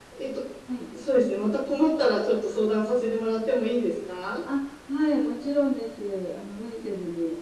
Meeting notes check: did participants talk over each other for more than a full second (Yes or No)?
No